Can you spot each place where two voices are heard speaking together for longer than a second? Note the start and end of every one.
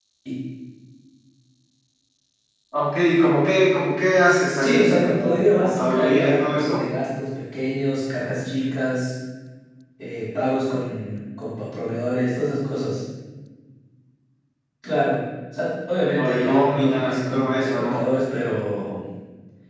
4.6-6.8, 16.1-18.0

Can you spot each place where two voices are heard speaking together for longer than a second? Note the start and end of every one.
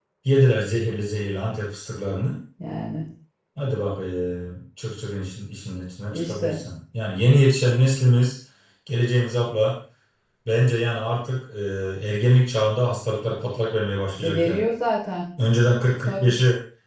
none

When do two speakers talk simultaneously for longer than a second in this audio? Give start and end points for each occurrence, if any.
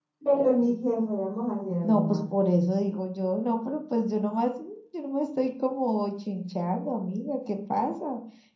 none

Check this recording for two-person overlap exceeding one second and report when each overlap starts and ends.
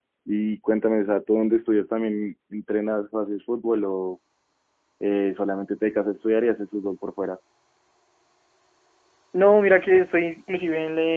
none

